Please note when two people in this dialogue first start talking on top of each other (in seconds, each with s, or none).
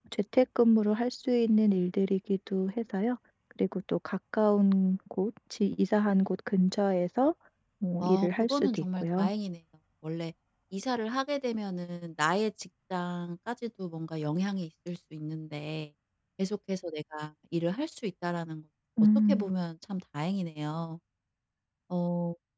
8.0 s